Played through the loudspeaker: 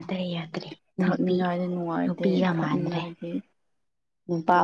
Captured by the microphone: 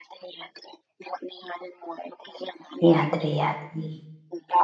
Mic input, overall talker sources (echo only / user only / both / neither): both